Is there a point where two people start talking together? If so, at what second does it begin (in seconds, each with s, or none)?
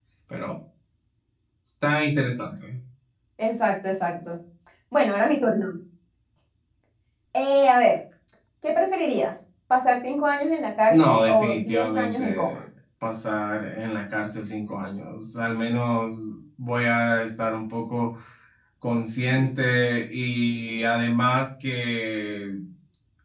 10.9 s